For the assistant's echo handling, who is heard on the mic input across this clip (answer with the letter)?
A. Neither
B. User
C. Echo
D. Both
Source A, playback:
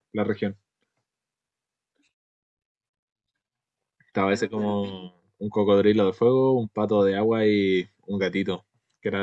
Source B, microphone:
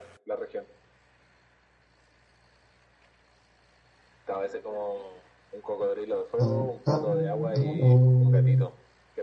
D